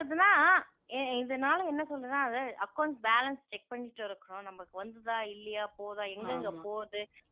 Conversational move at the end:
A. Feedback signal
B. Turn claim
A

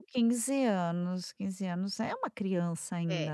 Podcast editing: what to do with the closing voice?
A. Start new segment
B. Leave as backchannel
A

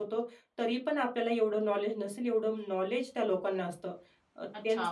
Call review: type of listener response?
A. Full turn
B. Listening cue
A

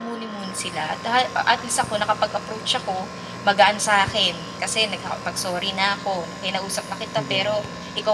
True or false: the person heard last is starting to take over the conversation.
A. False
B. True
A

